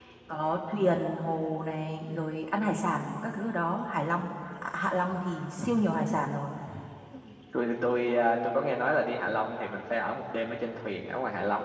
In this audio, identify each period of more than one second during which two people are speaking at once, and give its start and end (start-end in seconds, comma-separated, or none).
none